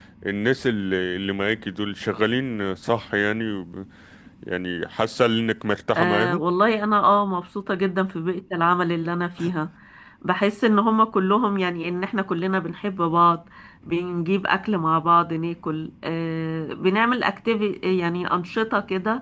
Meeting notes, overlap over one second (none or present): none